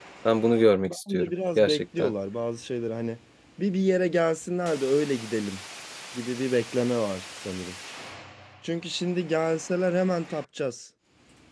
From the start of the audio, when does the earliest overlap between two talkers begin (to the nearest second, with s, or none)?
1 s